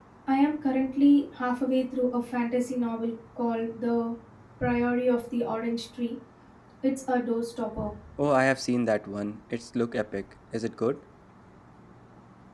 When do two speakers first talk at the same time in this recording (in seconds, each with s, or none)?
none